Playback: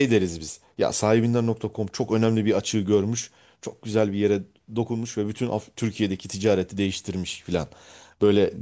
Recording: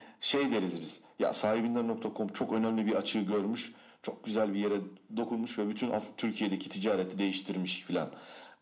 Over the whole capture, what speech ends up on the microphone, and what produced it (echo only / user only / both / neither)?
echo only